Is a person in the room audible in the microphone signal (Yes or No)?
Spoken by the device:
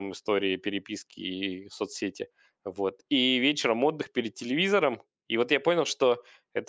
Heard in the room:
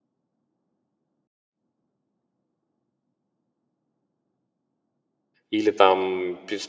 Yes